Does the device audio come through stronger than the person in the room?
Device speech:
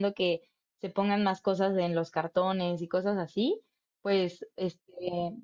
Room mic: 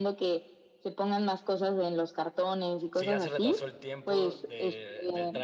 Yes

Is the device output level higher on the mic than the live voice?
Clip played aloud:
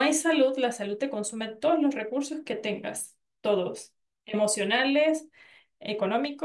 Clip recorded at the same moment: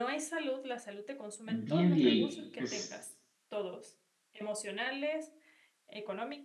No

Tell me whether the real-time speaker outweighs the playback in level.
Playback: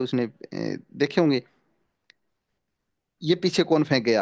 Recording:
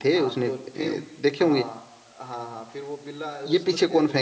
No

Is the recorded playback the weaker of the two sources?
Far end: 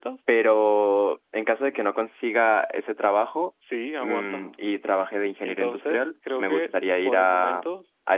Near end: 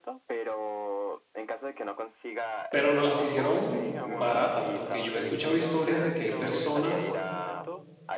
Yes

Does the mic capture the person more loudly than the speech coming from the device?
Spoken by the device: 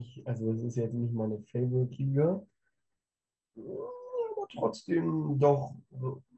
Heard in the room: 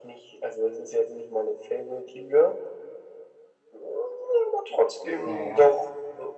No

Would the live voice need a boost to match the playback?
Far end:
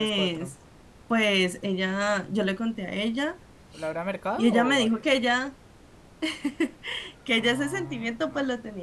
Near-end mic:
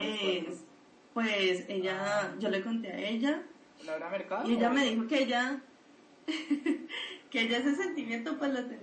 Yes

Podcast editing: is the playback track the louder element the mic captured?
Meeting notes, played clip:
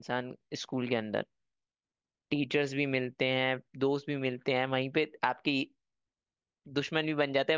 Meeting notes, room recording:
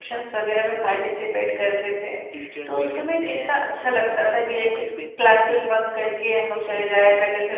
No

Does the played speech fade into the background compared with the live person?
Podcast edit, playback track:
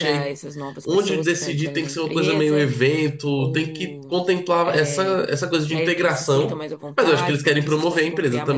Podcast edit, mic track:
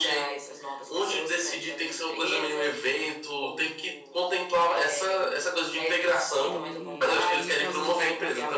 No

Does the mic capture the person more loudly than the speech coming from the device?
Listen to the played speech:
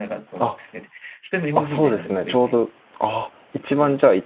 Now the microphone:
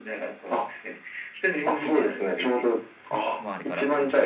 No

